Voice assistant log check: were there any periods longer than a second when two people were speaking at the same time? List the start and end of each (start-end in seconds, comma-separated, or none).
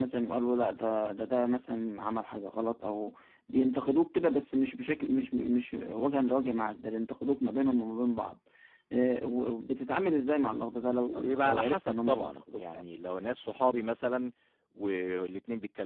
11.1-12.8